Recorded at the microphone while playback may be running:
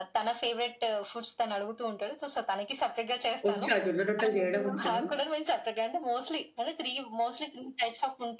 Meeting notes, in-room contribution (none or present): present